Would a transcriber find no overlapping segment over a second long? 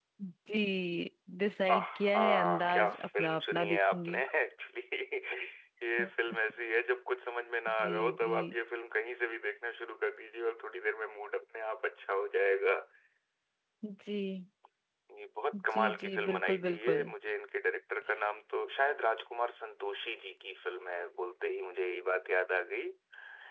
No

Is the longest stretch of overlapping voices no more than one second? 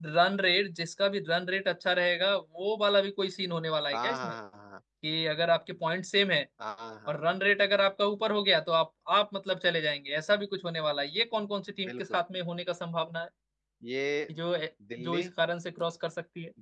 Yes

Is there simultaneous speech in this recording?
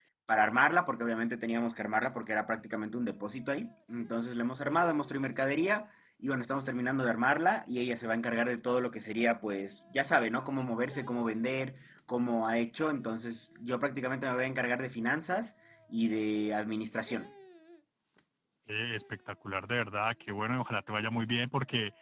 No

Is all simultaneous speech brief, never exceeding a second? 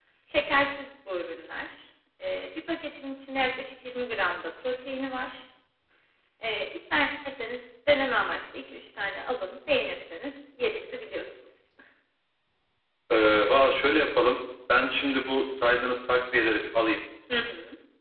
Yes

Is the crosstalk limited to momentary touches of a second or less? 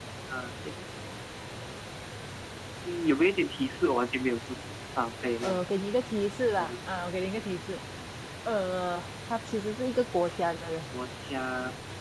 Yes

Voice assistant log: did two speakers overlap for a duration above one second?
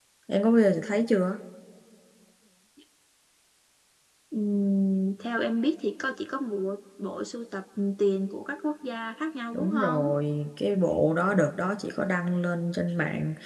No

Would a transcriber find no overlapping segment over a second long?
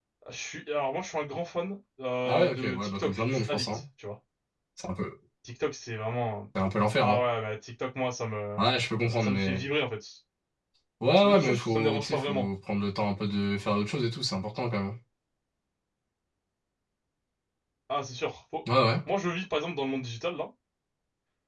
No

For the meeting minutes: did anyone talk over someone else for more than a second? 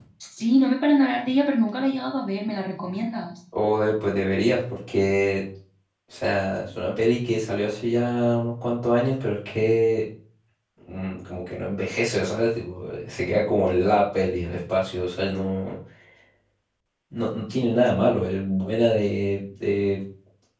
No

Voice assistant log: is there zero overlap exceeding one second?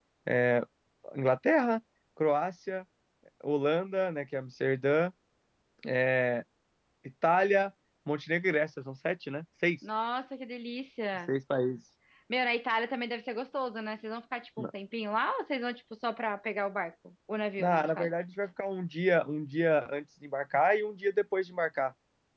Yes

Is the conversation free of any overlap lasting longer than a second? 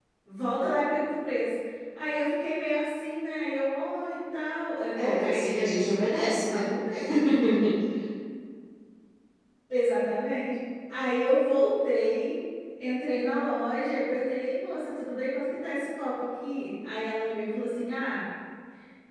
No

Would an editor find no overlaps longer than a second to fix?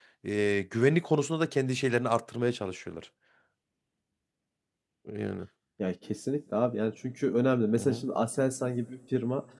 Yes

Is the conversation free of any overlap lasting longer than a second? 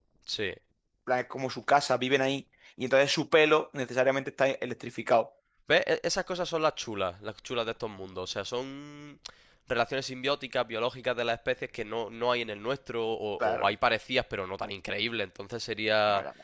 Yes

